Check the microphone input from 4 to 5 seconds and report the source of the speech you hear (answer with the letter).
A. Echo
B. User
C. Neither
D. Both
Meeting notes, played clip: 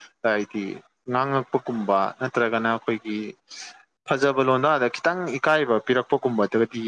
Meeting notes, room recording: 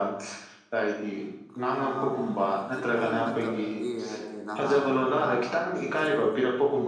D